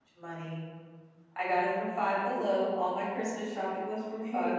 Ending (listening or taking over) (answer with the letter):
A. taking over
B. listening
A